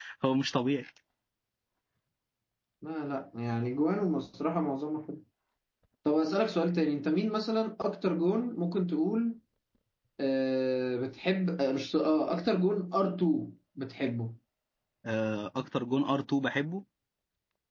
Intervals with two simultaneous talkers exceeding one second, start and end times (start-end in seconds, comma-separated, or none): none